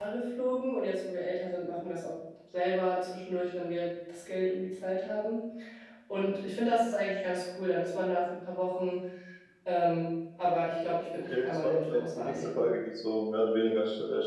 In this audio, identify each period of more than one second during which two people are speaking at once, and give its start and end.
11.2-12.7

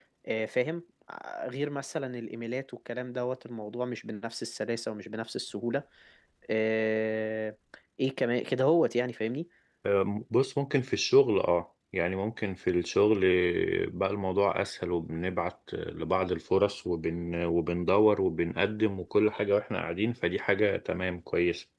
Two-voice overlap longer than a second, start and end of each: none

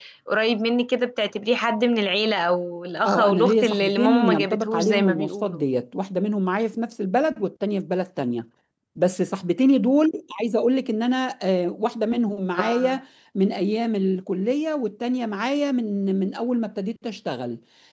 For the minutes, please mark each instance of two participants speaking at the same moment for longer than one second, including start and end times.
3.0-5.6

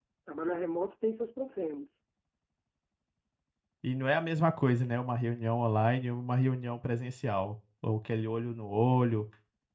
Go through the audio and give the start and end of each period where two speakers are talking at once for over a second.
none

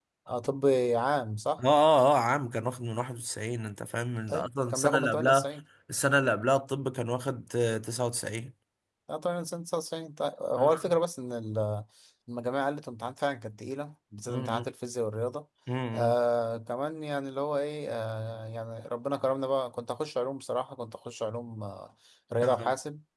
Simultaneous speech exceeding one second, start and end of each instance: 4.3-5.5

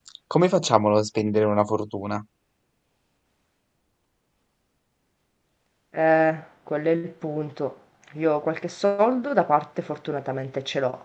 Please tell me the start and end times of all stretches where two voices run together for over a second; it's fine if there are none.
none

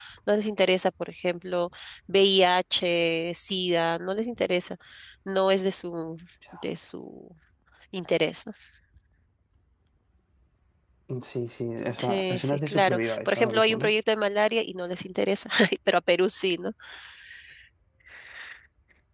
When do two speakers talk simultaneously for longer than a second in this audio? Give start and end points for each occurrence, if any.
12.0-13.9

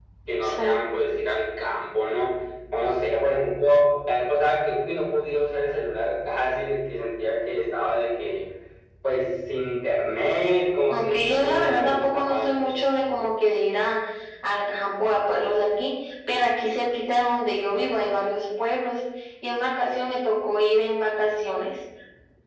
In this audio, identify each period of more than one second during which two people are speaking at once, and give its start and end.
10.9-12.7

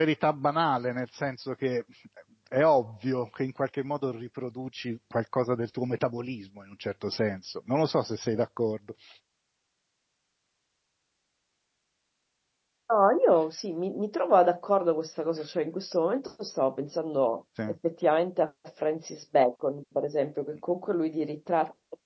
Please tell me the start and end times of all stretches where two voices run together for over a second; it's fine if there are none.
none

